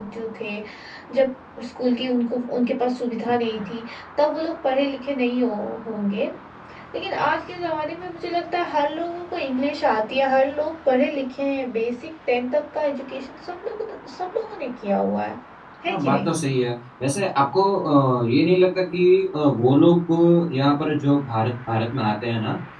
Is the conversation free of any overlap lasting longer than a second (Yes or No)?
Yes